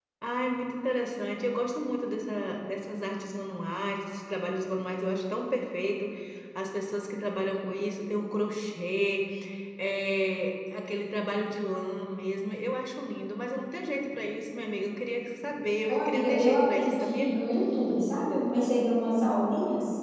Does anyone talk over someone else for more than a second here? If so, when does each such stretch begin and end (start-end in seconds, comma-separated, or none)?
15.9-17.3